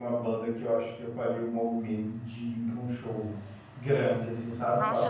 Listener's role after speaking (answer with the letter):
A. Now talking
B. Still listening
A